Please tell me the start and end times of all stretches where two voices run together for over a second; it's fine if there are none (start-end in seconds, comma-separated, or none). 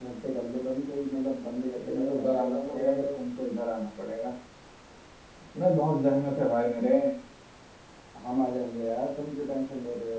1.7-3.2